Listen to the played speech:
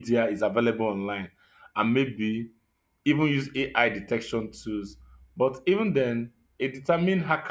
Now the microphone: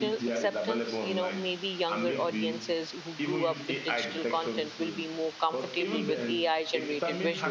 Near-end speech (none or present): present